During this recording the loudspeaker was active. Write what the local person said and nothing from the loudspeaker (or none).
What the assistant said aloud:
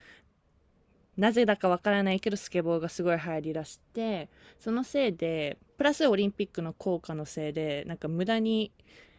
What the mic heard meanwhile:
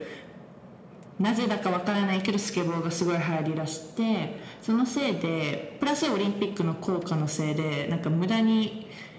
none